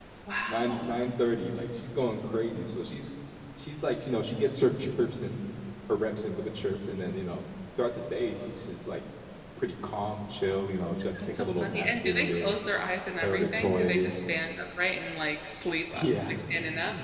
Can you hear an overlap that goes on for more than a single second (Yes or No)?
Yes